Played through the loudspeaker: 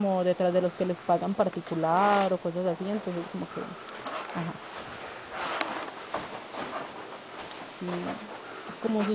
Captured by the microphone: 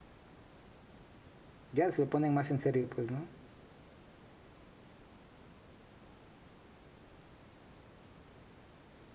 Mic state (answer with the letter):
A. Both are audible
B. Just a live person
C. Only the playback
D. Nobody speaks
B